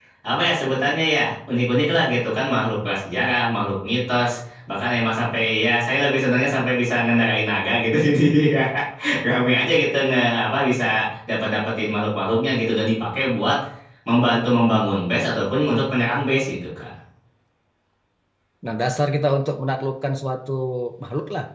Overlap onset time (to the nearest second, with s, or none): none